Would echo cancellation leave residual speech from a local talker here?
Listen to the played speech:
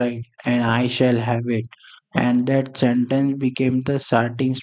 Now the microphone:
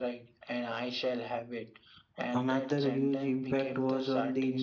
Yes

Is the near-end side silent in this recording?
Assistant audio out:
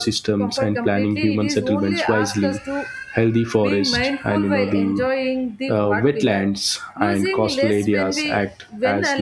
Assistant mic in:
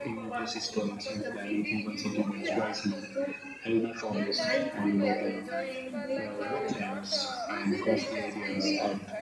No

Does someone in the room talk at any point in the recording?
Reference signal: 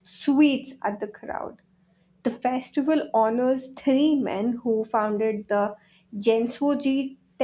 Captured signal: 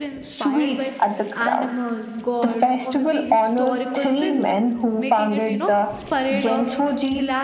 Yes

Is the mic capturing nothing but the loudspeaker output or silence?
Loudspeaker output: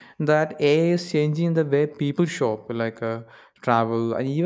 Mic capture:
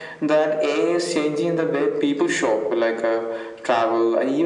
Yes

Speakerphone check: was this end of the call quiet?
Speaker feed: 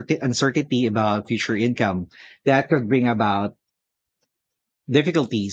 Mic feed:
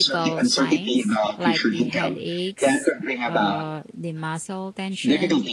No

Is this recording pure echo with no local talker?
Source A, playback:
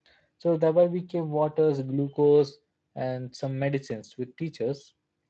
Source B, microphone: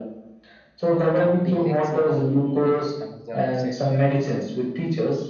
No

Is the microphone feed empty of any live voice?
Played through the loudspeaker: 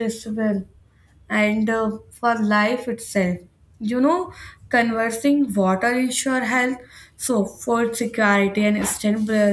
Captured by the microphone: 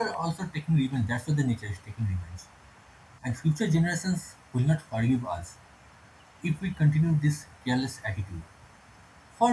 No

